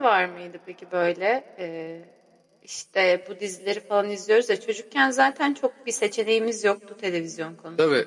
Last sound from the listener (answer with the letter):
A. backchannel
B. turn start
B